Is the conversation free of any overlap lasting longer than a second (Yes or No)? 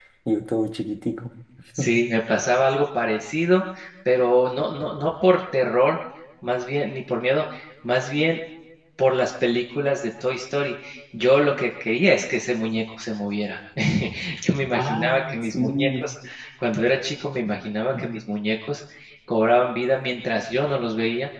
No